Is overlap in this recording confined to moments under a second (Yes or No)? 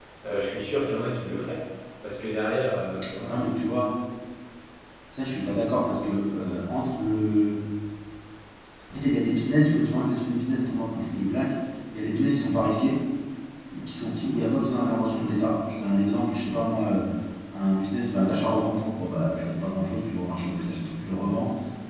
Yes